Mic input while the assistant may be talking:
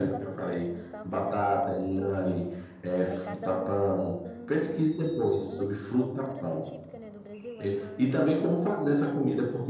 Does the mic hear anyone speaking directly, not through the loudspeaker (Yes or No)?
Yes